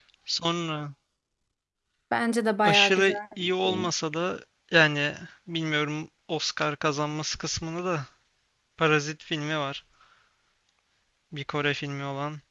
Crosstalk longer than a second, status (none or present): present